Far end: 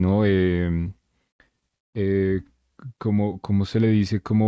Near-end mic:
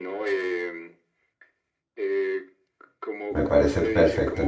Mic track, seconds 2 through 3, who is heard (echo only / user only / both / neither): echo only